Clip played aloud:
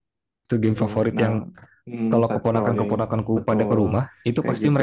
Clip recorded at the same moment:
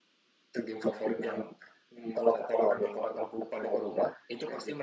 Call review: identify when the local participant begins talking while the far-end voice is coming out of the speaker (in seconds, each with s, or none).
none